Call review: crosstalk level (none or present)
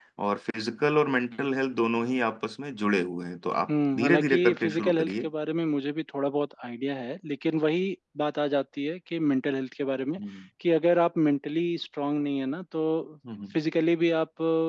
present